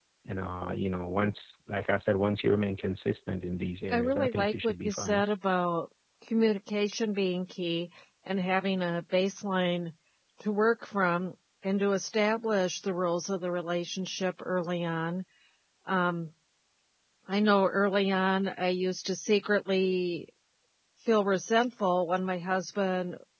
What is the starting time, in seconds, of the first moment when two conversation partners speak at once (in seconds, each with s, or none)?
3.9 s